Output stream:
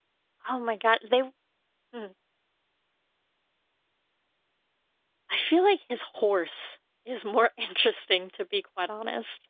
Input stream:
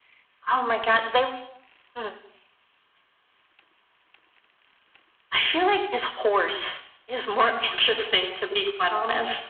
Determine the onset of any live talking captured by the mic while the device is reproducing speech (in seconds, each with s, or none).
none